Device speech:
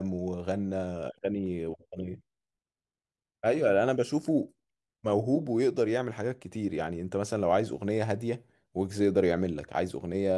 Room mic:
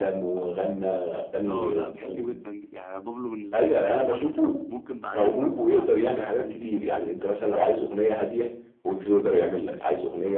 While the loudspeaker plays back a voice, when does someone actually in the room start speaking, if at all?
1.5 s

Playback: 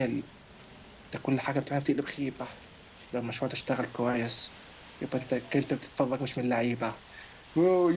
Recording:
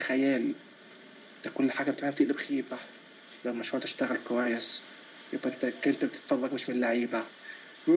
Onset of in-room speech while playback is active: none

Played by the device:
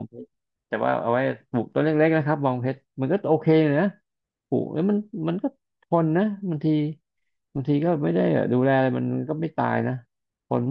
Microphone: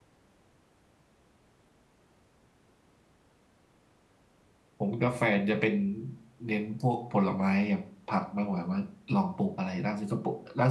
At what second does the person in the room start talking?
4.8 s

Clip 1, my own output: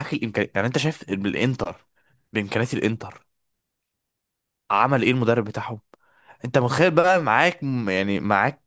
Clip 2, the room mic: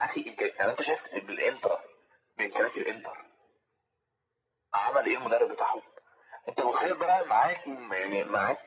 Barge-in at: none

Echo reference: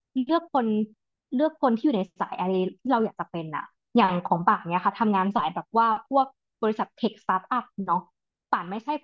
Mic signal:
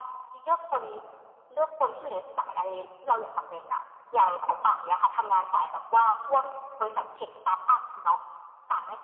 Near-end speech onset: none

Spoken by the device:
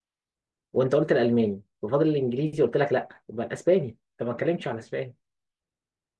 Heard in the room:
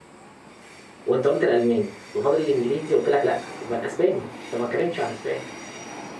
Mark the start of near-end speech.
none

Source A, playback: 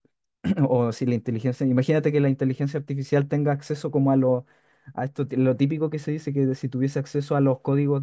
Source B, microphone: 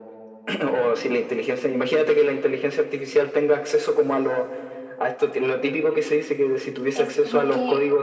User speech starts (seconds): 6.9 s

